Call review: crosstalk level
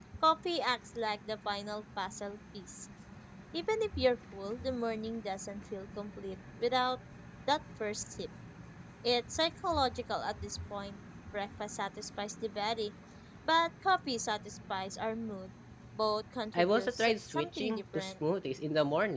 present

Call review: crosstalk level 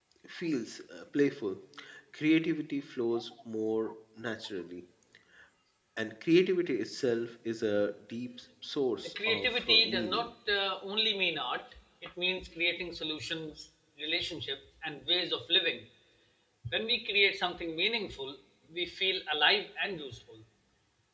present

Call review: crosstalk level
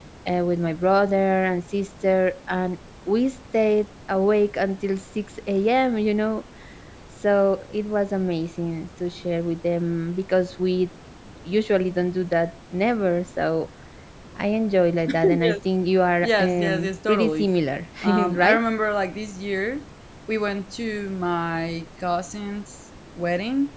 present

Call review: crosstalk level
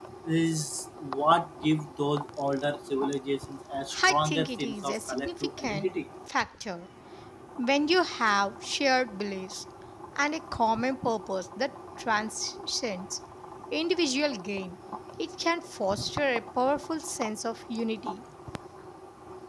present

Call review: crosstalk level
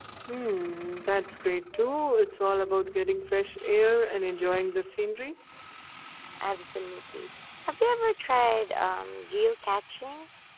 none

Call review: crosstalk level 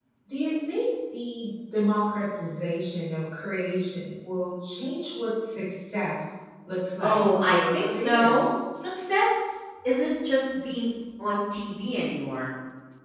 present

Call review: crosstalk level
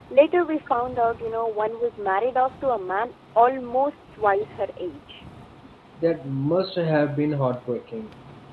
none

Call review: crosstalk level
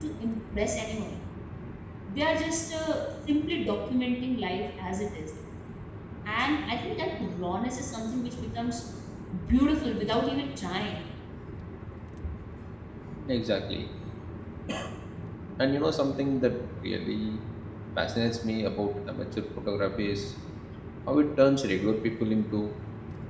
none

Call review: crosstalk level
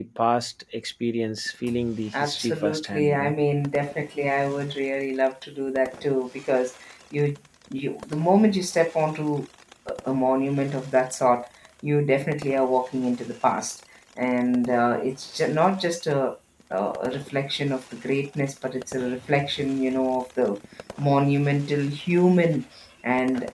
present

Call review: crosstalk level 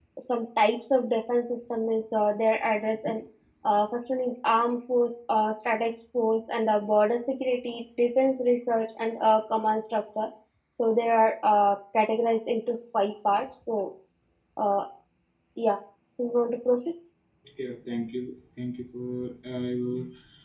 none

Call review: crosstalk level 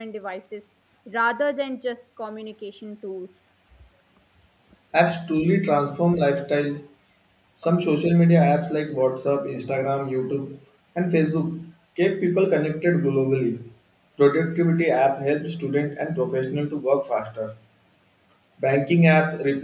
none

